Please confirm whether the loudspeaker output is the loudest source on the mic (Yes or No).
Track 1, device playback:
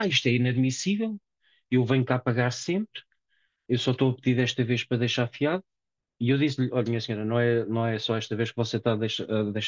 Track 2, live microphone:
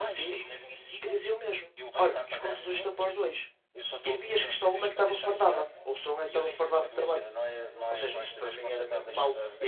No